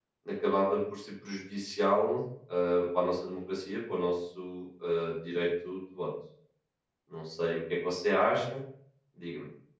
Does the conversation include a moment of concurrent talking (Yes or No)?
No